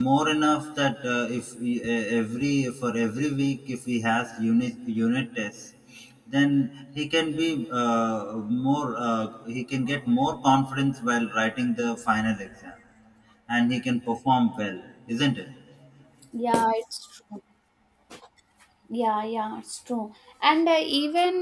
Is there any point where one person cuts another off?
No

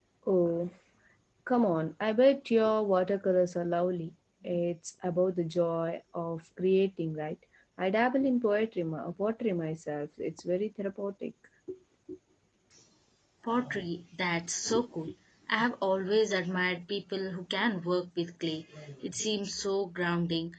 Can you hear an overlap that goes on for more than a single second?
No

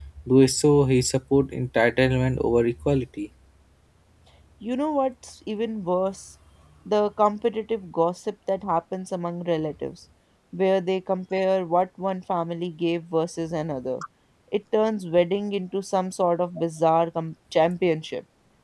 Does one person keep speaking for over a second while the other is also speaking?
No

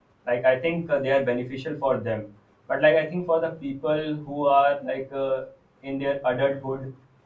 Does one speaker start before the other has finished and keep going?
No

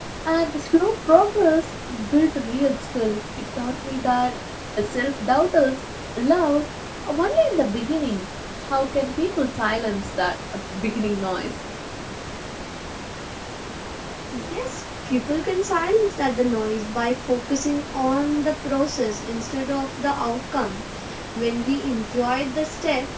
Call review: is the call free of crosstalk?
Yes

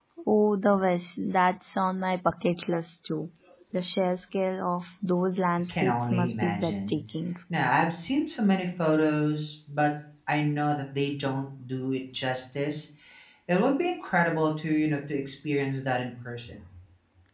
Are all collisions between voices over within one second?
No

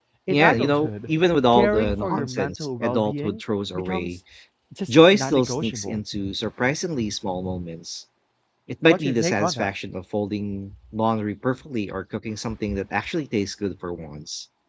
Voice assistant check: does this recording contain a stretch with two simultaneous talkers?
Yes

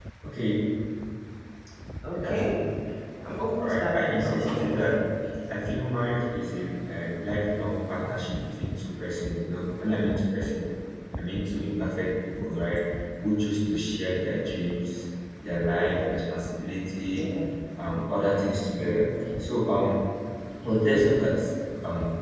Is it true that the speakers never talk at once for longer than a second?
No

